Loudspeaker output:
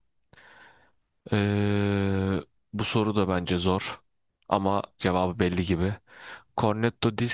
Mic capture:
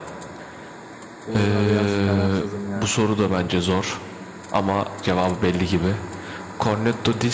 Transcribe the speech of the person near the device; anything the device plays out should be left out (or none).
Burada biraz kararsızım ya.